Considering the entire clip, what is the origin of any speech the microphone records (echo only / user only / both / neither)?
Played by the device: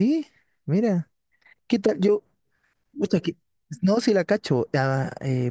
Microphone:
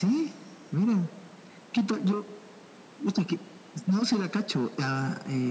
echo only